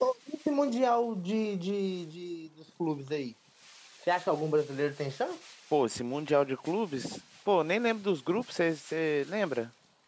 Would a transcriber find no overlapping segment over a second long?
Yes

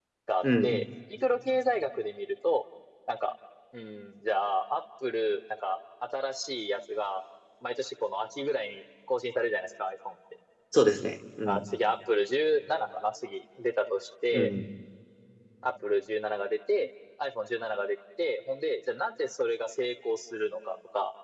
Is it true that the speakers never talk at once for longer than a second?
Yes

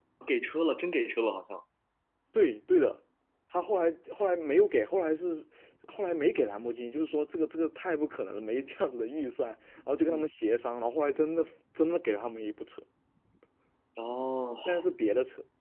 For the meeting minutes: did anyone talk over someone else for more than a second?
No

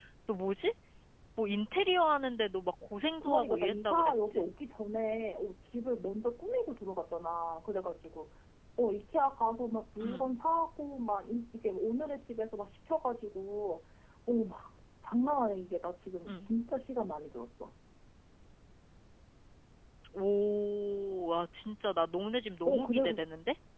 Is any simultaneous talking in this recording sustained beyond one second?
Yes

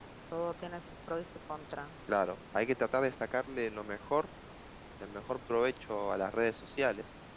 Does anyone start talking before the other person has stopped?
No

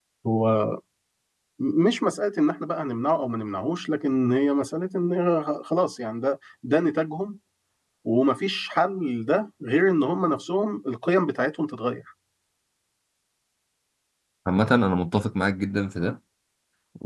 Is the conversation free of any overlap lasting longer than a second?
Yes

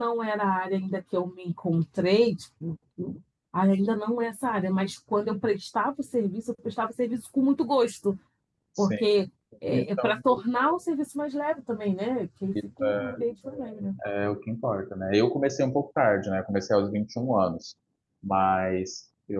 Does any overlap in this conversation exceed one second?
No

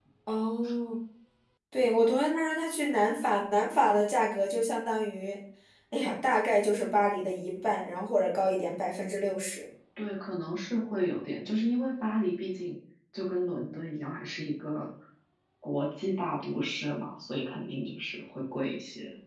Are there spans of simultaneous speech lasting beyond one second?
No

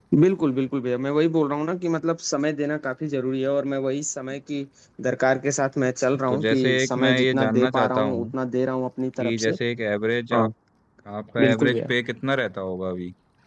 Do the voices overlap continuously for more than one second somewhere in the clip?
Yes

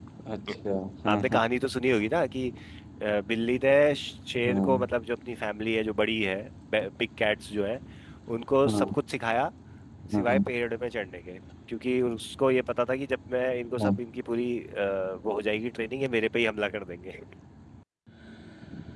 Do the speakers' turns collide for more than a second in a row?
No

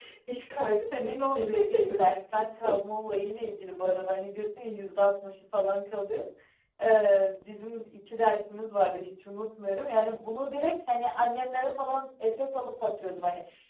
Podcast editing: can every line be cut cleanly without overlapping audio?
No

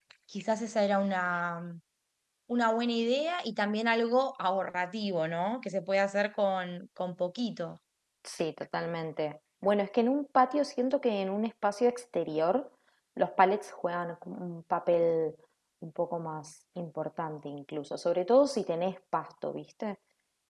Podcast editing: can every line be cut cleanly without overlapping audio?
Yes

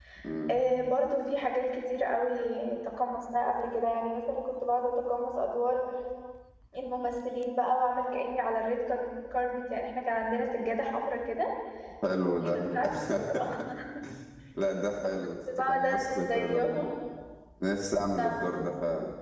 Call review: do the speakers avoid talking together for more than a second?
No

